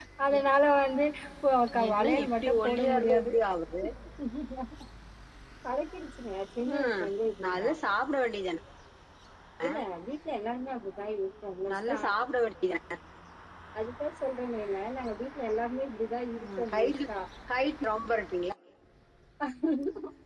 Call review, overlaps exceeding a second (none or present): present